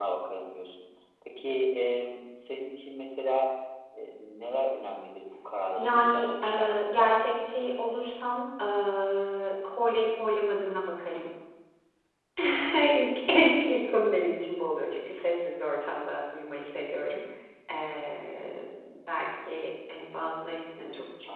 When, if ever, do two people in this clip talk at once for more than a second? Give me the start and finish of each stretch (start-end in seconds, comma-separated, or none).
5.8-7.1